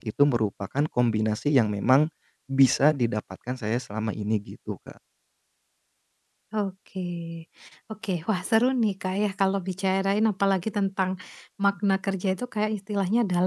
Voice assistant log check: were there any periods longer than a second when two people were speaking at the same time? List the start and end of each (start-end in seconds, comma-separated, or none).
none